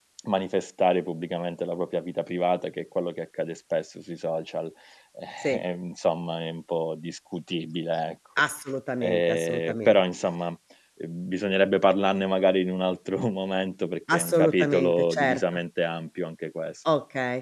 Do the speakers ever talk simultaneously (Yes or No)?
Yes